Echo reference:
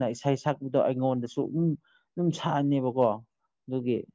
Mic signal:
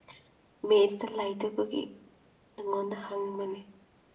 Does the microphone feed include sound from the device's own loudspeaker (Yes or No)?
No